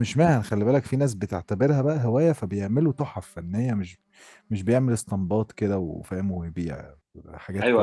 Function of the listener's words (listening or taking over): taking over